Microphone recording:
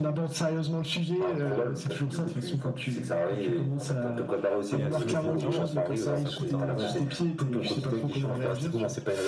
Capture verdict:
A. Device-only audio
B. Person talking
B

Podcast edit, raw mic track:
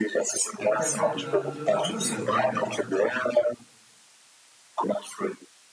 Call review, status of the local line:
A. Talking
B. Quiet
A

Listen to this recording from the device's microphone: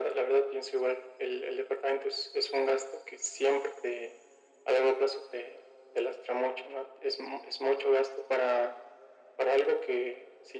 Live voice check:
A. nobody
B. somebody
A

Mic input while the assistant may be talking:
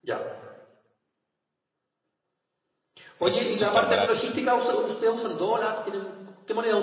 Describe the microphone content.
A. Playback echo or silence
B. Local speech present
B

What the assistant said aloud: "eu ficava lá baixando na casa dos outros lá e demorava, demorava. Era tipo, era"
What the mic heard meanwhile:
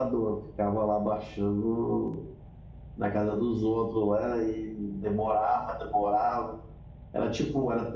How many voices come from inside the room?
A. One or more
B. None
B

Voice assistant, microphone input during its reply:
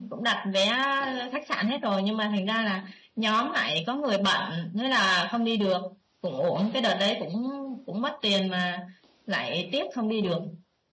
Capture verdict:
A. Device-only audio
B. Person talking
A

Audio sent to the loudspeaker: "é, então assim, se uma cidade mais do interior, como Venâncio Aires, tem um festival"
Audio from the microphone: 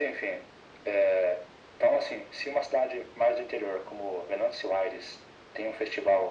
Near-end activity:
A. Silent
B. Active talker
A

